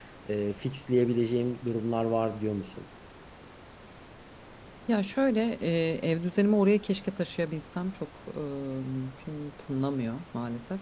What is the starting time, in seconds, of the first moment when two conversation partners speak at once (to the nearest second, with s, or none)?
none